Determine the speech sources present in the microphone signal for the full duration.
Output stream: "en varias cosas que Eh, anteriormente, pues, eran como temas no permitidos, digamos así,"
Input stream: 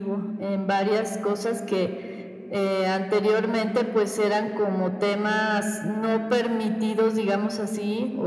echo only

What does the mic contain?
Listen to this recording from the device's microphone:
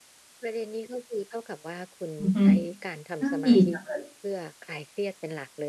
both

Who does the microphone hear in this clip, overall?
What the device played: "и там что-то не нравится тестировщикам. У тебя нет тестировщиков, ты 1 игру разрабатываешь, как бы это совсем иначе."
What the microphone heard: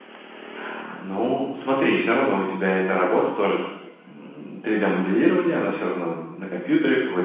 user only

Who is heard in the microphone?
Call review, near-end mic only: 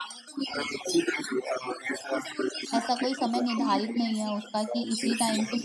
both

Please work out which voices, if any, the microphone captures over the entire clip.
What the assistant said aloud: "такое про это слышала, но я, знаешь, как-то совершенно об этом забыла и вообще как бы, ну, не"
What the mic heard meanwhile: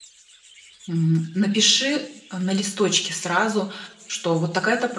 user only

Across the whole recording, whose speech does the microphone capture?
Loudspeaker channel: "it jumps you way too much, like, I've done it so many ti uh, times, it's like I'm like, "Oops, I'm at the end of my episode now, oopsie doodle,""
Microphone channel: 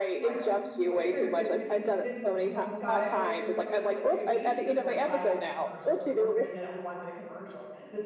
both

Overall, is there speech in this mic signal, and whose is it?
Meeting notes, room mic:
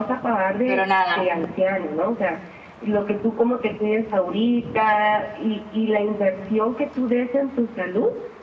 both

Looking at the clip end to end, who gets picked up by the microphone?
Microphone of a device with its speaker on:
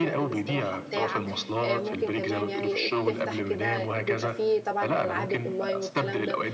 both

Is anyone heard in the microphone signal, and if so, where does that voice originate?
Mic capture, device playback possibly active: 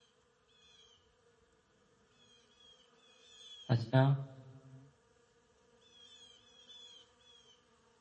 user only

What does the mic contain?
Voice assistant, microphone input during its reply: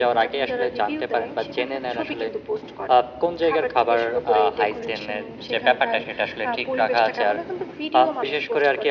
echo only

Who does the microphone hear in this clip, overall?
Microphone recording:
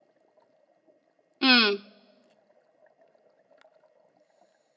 user only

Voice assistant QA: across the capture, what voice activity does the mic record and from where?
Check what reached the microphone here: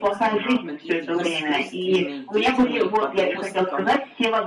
both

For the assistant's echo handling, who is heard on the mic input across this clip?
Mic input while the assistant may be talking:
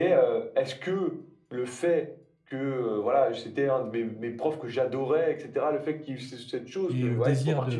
both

